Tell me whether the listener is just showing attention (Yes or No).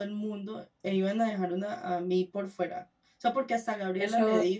No